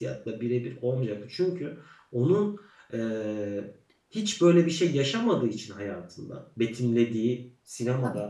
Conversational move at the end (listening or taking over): listening